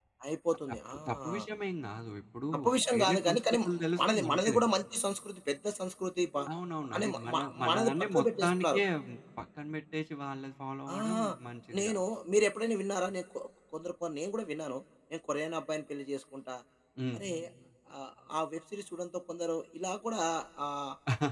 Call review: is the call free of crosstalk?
No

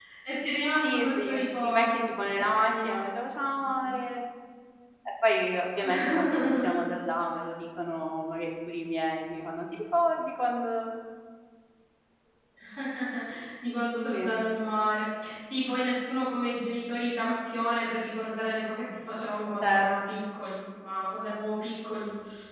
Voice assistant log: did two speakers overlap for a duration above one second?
Yes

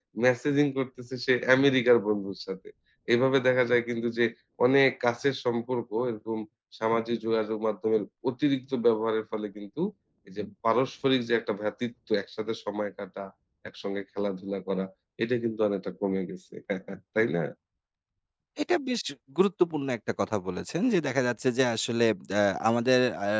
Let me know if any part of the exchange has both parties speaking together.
No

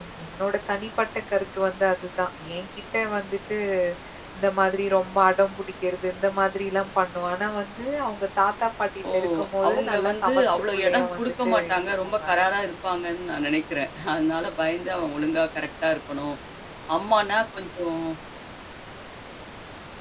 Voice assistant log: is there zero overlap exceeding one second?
No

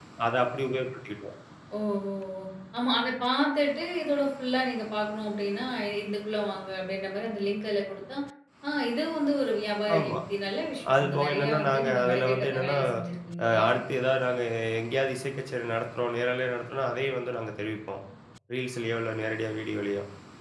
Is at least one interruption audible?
Yes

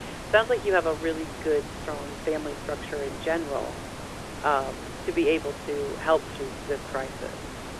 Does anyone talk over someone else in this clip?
No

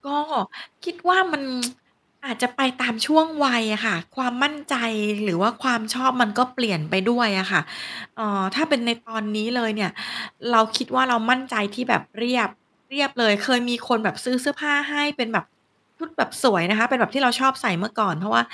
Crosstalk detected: No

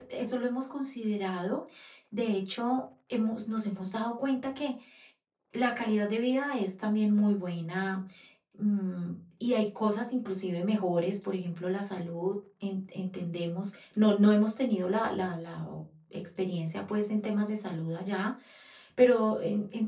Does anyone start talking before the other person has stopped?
No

